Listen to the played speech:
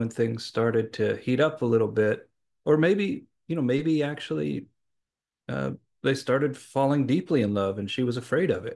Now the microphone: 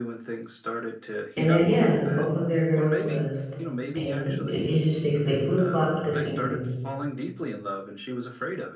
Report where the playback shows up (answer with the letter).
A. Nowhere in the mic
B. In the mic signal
B